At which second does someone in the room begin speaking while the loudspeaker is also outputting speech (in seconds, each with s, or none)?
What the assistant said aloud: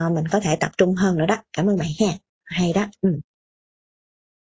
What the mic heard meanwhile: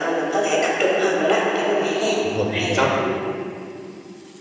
2.2 s